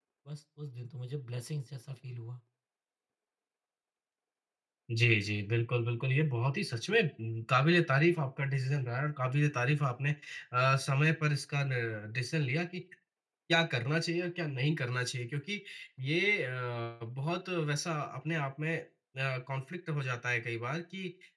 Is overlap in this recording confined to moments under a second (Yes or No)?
Yes